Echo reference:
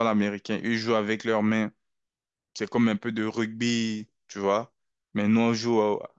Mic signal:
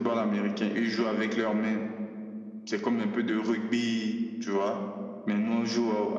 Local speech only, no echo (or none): none